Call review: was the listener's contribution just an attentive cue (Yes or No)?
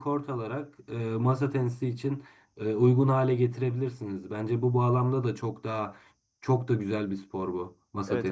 No